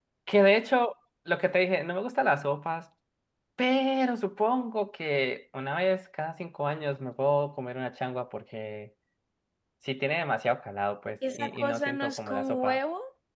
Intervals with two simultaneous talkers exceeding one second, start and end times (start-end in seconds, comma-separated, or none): 11.3-12.8